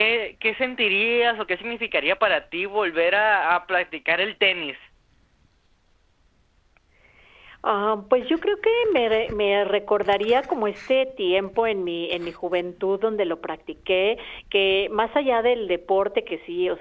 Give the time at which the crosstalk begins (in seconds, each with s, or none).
none